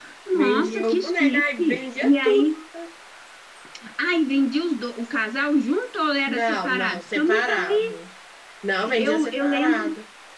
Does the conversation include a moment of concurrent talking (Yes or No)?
Yes